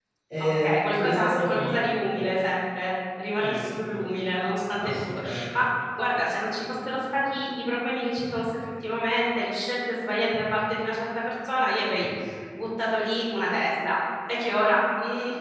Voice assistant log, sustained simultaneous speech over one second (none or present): present